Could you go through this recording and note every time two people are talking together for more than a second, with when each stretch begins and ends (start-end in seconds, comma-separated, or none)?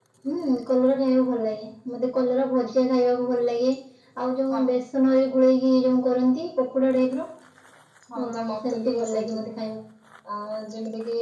8.2-9.4